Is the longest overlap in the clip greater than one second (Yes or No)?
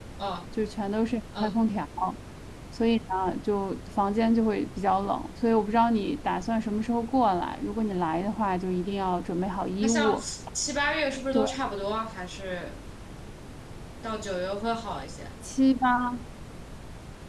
No